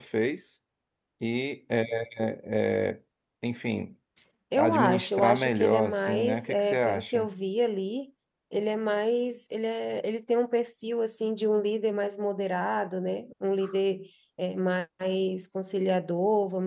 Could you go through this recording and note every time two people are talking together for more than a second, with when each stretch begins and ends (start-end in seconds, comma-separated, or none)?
4.6-7.3